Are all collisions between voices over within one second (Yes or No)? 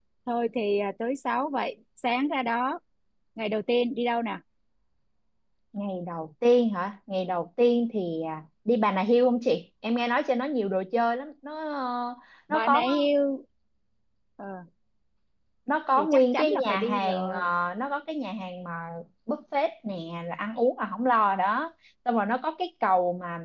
No